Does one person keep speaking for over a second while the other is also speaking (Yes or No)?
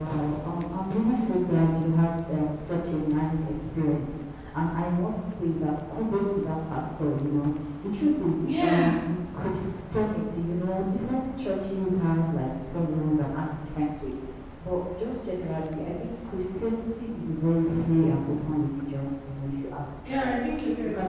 No